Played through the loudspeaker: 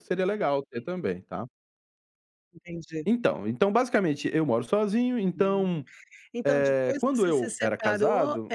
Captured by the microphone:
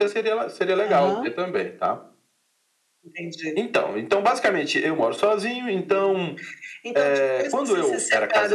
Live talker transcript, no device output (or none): Aham.